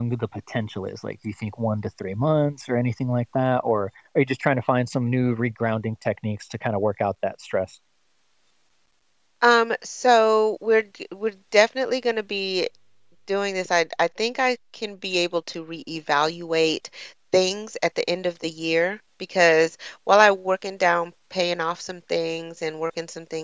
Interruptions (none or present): none